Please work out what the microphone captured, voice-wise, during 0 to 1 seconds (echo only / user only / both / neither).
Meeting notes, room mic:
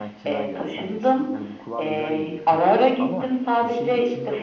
both